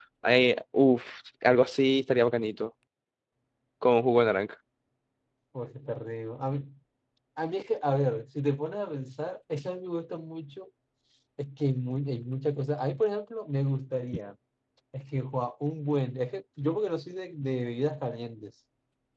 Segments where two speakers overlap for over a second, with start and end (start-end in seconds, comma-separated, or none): none